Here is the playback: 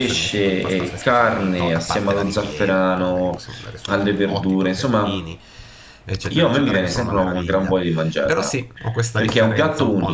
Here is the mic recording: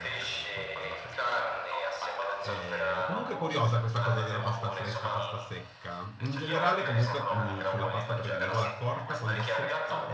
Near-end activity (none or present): present